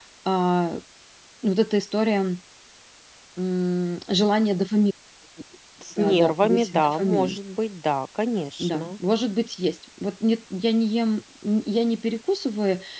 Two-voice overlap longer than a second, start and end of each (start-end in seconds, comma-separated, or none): 6.0-7.4